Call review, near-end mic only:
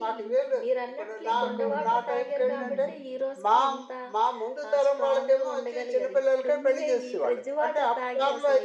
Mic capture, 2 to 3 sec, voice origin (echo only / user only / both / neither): both